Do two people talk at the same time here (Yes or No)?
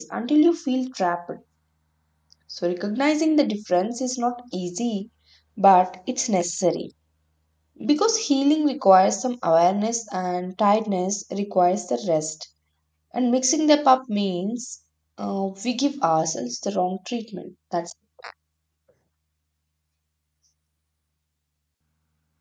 No